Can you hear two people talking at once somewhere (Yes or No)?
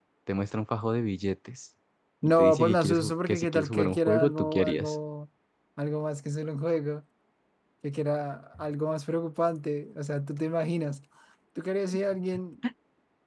Yes